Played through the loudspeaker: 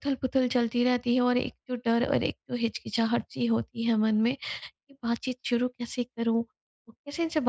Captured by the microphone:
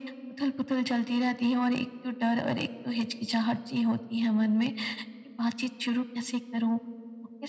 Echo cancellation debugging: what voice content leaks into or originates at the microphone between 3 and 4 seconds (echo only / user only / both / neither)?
echo only